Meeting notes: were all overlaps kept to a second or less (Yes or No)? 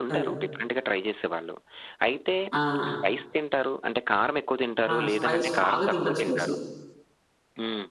No